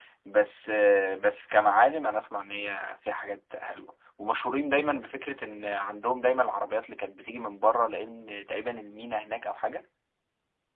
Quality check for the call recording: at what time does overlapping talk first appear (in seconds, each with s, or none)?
none